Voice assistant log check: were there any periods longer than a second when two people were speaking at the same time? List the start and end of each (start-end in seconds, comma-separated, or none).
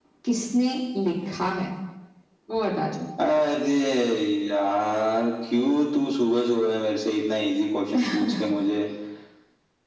none